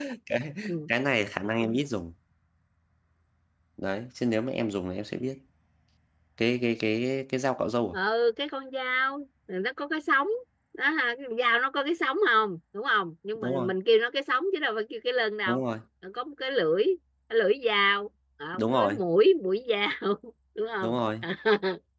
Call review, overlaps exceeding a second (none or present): none